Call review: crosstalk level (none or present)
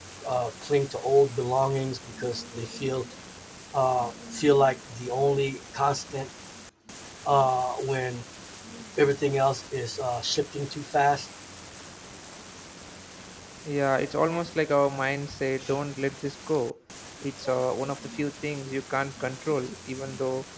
none